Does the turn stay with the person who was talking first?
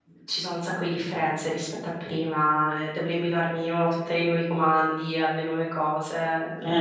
No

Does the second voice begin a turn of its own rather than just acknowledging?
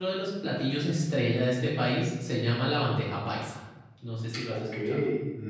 Yes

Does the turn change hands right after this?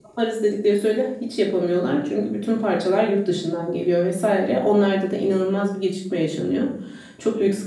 No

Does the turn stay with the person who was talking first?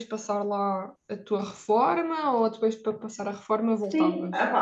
No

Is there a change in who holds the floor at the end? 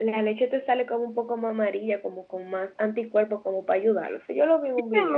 Yes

